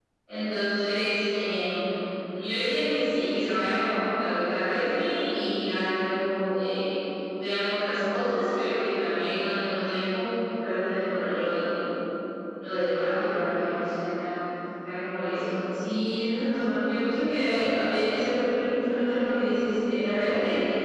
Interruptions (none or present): none